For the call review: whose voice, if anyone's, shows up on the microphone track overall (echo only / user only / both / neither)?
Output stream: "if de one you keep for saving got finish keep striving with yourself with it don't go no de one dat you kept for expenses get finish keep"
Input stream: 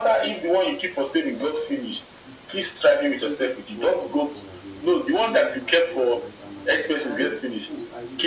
both